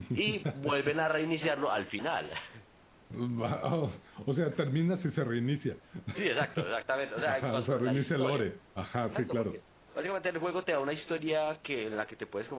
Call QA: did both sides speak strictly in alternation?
No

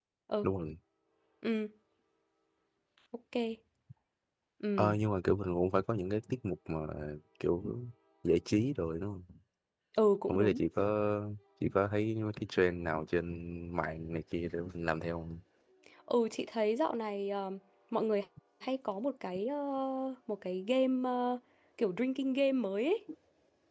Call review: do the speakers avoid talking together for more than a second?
Yes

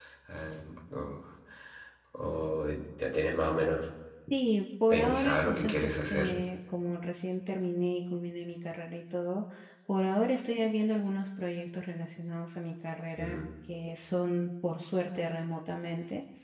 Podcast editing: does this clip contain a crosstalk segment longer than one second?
Yes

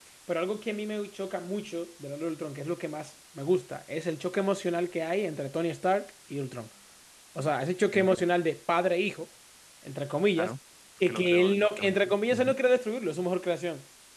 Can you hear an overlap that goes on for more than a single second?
Yes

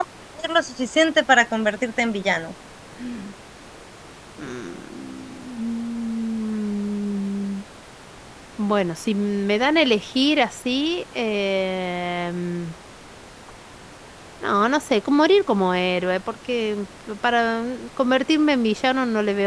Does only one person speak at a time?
Yes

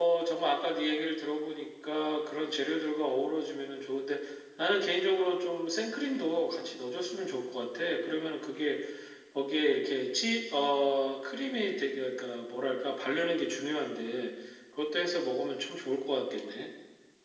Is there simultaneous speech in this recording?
No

